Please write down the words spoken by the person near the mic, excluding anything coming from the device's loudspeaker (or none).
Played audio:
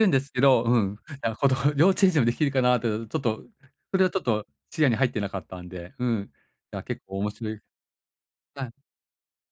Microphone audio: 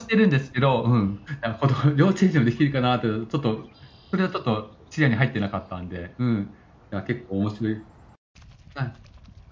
none